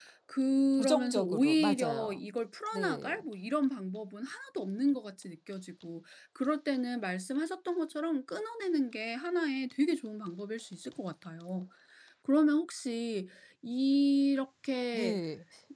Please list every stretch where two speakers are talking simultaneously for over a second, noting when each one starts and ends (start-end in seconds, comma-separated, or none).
0.8-2.2